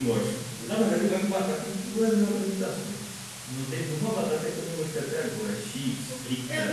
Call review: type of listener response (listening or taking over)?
taking over